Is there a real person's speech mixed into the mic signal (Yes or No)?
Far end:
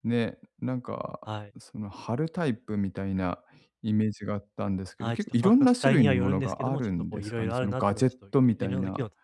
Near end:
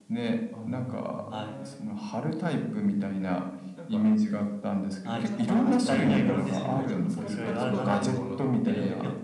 Yes